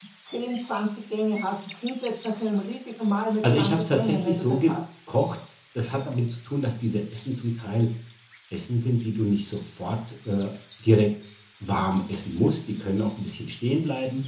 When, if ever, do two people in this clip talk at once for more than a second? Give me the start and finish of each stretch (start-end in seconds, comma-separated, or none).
3.5-4.7